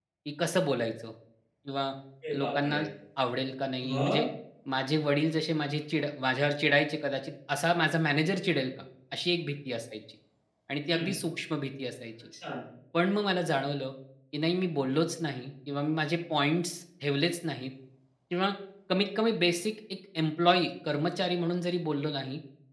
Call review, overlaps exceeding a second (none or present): none